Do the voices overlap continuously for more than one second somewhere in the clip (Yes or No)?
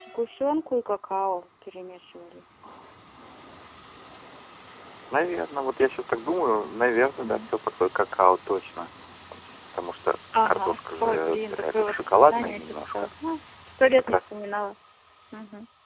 Yes